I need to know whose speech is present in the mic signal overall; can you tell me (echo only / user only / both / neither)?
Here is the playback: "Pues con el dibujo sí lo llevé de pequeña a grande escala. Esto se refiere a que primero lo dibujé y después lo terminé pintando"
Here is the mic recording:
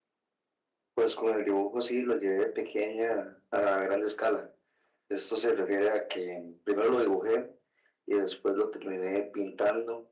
echo only